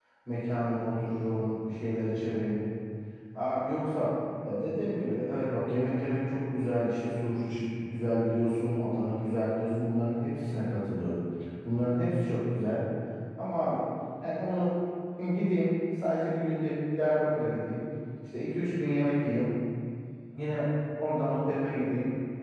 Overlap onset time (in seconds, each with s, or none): none